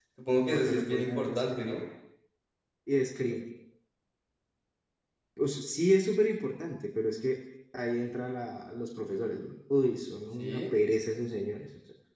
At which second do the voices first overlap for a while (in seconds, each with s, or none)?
0.5 s